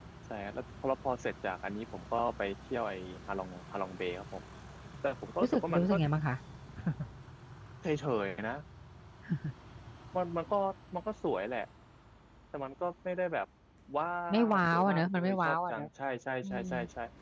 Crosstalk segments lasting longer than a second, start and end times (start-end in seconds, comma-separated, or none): 14.5-15.9